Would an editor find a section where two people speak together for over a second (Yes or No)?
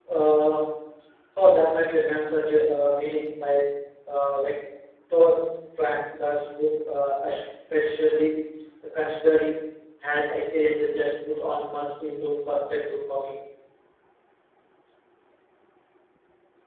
No